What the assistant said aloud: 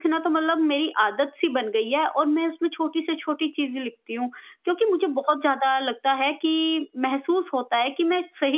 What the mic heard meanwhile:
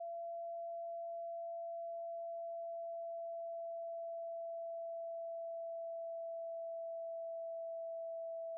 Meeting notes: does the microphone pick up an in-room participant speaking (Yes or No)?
No